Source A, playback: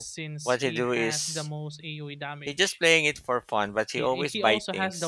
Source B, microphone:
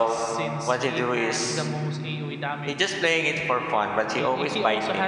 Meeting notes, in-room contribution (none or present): none